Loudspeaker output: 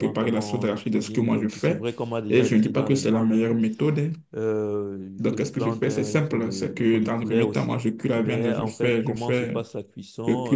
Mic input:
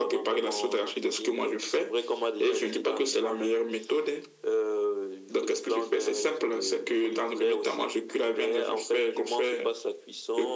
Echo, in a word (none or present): present